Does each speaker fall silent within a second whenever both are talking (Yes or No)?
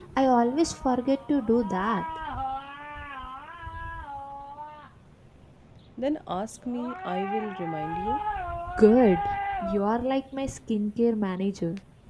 Yes